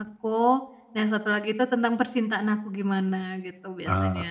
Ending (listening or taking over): taking over